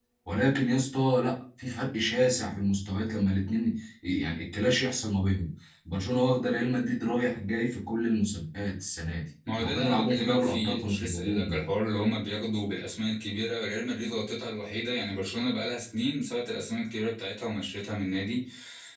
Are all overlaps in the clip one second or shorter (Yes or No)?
No